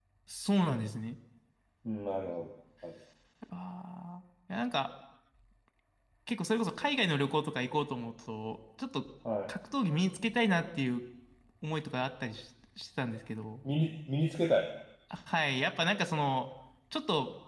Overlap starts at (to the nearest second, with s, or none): none